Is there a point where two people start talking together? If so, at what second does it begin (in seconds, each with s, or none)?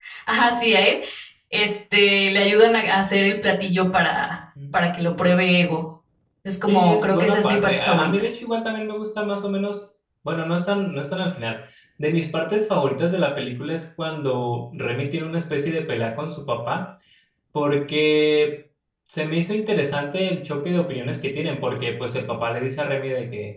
6.7 s